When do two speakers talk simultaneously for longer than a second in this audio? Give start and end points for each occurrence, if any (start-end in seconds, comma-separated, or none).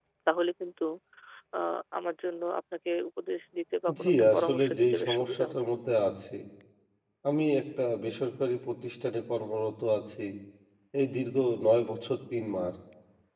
4.0-5.6